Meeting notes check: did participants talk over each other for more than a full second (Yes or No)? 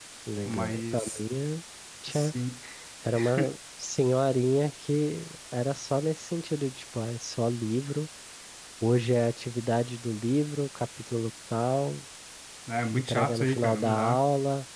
Yes